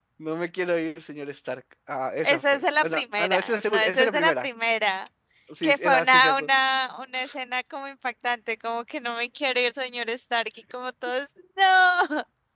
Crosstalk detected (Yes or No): Yes